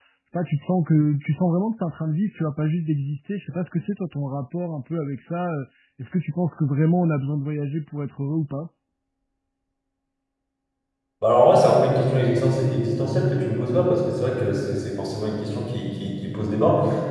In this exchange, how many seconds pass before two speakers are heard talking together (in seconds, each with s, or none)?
none